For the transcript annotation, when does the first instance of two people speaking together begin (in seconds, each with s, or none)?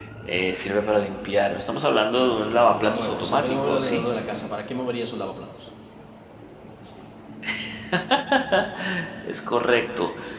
2.5 s